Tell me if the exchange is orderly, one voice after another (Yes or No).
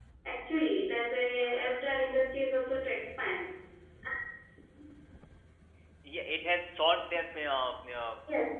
Yes